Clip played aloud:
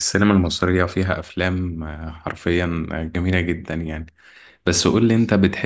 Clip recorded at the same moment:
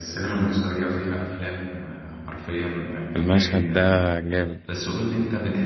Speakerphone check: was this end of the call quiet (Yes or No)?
No